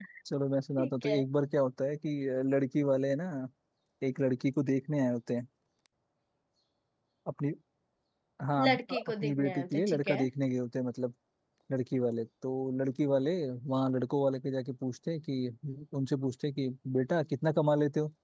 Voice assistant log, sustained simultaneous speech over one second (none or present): present